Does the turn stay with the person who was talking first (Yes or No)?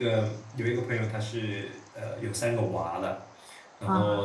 Yes